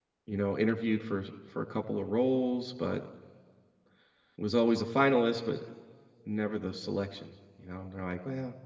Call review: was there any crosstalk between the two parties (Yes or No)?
No